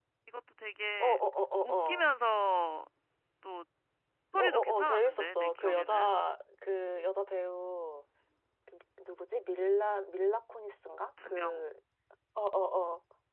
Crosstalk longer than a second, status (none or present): present